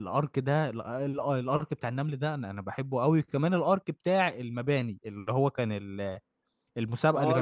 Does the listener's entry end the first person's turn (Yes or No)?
Yes